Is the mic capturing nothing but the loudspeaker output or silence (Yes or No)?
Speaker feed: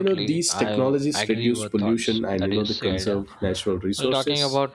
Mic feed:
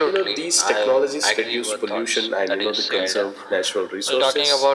Yes